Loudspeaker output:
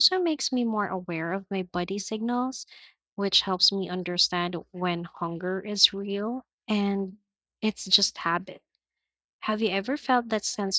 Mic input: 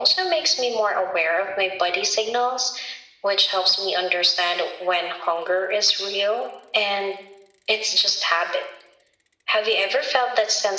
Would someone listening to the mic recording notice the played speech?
Yes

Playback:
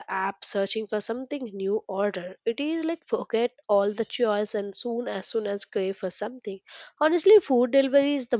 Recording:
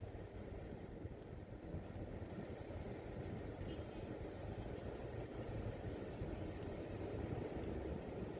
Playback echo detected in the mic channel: No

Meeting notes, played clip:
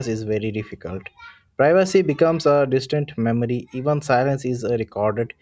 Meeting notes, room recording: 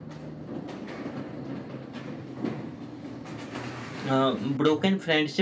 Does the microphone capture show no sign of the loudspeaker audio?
Yes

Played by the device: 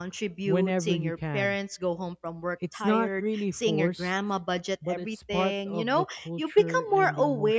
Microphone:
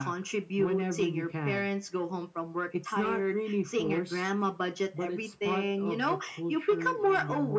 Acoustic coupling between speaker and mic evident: Yes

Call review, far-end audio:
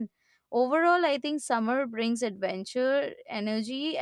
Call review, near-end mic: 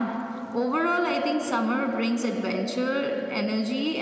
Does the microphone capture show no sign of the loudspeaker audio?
No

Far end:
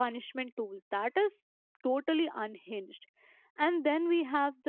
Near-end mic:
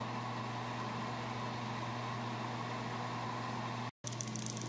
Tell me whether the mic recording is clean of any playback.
Yes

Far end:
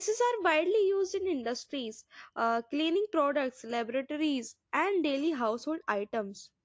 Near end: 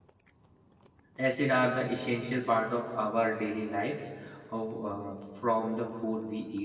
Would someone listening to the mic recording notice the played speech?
No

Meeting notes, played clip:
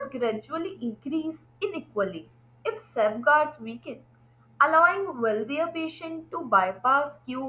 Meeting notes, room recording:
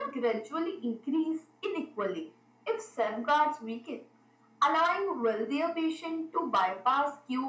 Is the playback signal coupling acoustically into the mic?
Yes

